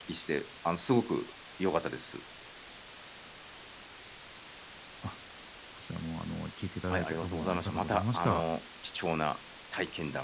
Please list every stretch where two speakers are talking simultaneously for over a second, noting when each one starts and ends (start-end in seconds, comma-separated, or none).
6.9-8.4